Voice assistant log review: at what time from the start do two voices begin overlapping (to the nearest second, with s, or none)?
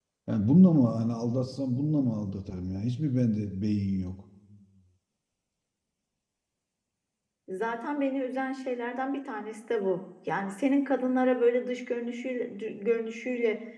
none